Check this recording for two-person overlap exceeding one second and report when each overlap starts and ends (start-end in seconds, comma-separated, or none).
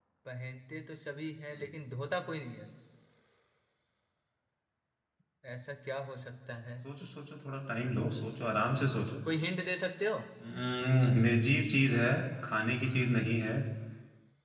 none